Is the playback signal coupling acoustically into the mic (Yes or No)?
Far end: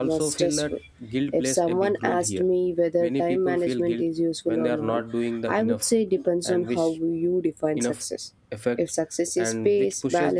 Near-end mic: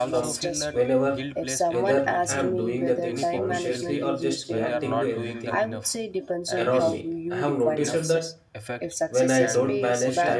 Yes